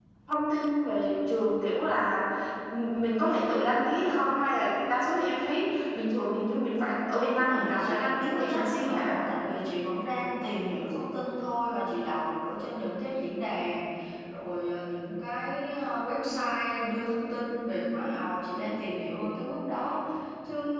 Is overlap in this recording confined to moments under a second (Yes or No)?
No